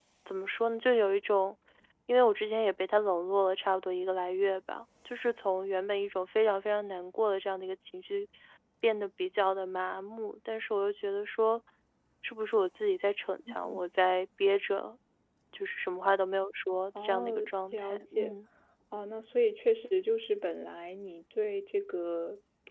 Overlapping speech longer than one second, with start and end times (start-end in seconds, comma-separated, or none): 17.0-18.4